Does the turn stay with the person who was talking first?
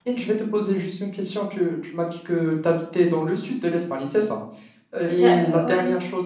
Yes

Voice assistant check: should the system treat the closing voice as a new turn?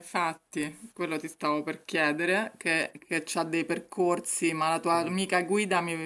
No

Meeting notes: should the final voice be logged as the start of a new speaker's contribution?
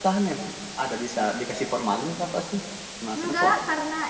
Yes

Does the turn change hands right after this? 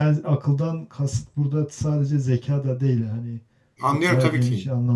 Yes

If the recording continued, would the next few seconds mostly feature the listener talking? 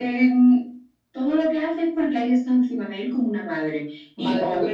Yes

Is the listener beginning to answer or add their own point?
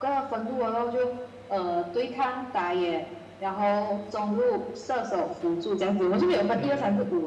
Yes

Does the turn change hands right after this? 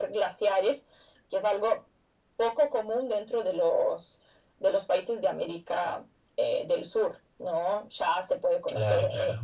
No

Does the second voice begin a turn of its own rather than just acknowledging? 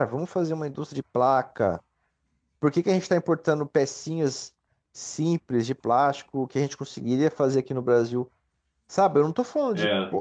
No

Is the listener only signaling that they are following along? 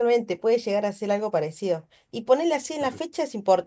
Yes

